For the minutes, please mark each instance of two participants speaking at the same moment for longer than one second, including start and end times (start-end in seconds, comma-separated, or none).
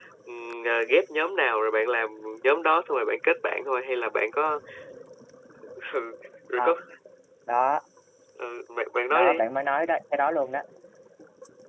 none